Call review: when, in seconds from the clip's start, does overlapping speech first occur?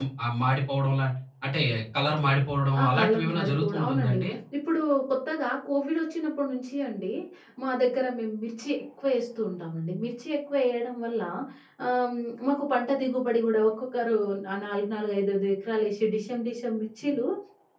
3 s

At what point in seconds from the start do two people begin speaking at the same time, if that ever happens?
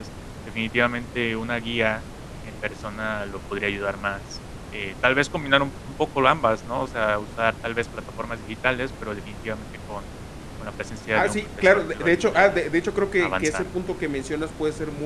11 s

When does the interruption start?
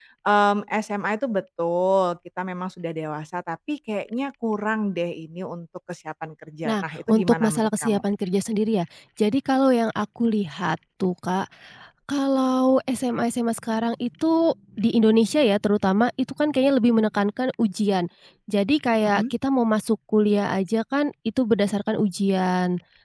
7 s

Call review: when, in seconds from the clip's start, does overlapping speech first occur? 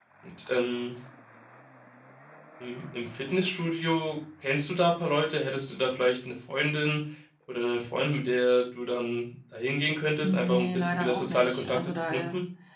10 s

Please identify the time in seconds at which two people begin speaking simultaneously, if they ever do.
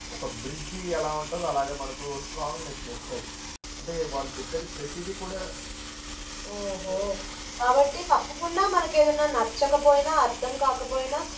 none

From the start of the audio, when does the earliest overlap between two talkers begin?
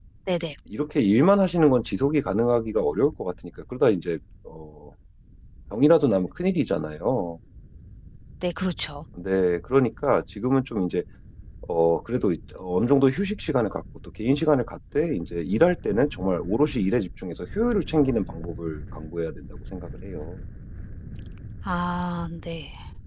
none

